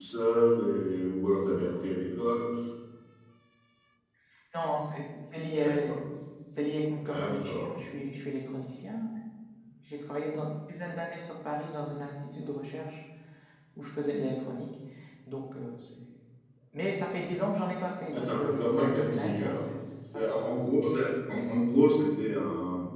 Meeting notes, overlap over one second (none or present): present